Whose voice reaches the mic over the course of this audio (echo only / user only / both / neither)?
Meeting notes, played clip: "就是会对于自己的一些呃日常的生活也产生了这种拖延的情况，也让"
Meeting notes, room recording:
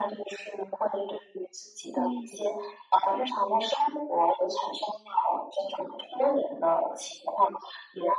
both